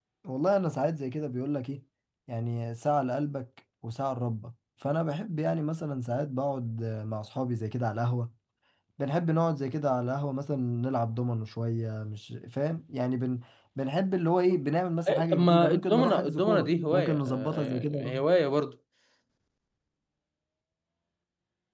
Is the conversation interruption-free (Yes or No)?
No